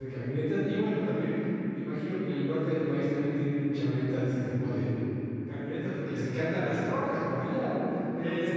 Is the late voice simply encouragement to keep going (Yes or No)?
Yes